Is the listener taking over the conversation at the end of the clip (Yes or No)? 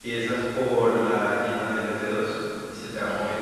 No